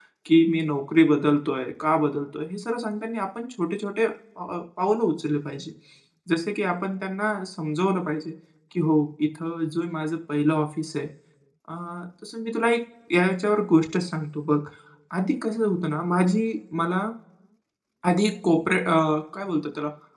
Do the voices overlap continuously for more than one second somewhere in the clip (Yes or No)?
No